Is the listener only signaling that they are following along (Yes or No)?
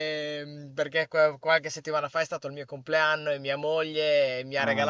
Yes